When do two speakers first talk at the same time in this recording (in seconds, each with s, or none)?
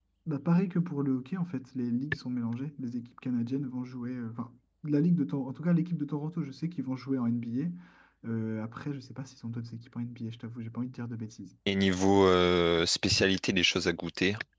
none